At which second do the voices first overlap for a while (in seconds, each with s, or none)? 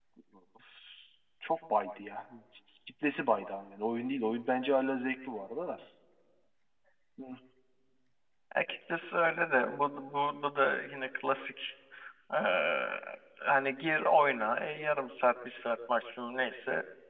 none